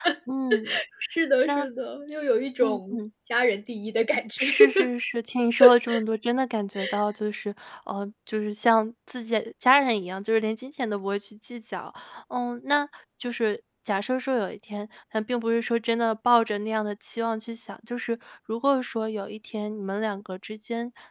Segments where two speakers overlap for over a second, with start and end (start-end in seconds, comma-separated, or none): none